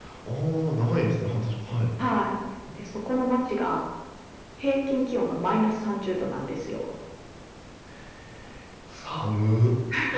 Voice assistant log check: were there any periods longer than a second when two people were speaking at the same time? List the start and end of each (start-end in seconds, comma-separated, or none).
none